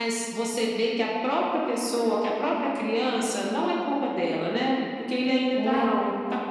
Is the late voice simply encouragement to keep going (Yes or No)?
Yes